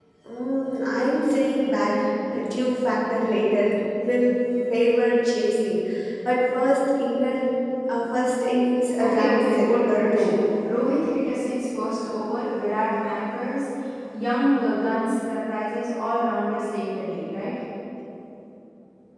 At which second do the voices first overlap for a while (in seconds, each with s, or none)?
9.0 s